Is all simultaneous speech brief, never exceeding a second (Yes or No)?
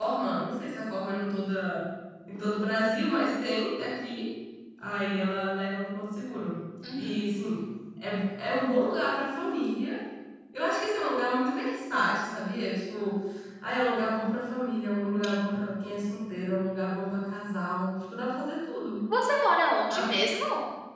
Yes